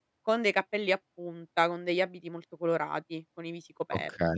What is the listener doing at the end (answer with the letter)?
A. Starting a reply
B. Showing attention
A